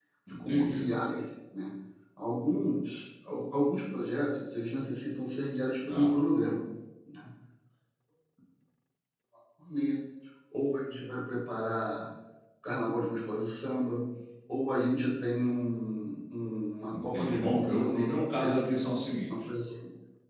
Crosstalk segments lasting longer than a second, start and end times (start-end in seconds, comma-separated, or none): 16.9-18.6